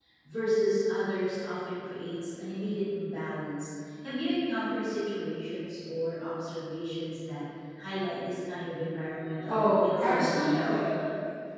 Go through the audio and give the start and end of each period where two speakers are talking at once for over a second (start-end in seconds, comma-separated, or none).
9.5-10.8